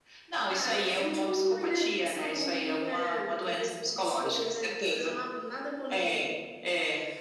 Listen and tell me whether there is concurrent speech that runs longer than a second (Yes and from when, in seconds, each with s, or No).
Yes, from 0.5 s